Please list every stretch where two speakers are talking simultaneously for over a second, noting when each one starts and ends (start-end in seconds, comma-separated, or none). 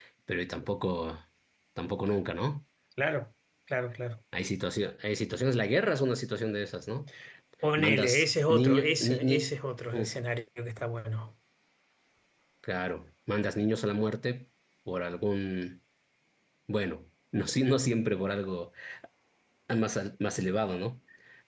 7.8-9.5